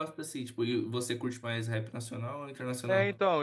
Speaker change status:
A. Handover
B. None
A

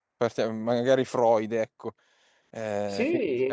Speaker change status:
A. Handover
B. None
A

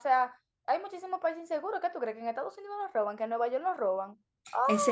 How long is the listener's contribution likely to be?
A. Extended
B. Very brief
A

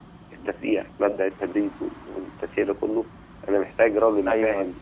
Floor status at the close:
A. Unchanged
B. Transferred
A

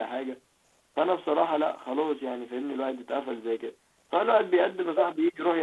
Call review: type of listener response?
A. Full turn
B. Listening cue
B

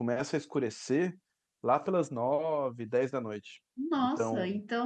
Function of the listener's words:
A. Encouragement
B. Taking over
B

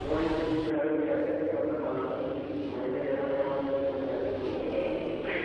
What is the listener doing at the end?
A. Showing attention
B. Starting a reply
B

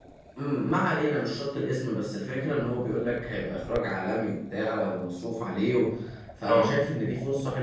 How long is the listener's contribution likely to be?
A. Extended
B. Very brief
B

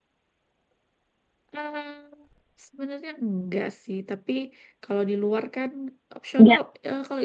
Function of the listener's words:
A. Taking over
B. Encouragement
B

